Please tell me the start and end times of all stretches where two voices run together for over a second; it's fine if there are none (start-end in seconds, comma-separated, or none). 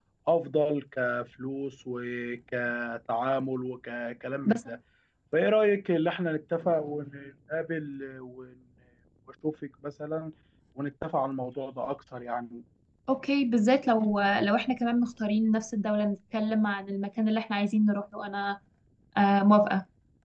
none